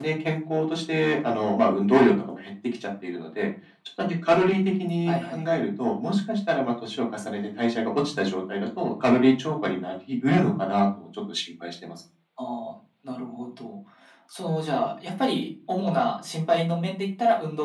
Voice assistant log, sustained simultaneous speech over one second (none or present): none